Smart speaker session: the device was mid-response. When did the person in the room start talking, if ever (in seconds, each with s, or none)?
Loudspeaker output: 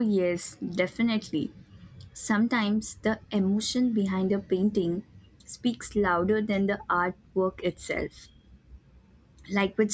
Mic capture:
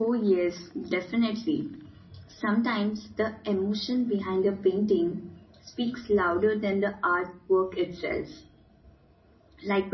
none